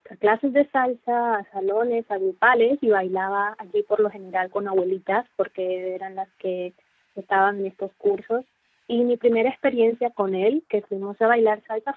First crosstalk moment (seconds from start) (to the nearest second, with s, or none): none